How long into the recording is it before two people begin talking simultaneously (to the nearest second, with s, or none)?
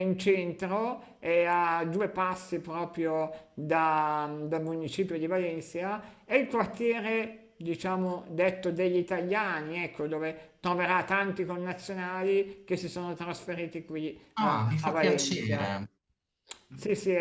14 s